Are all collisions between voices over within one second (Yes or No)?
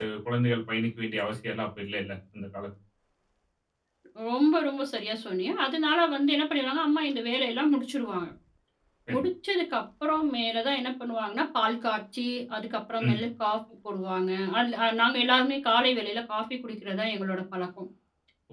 Yes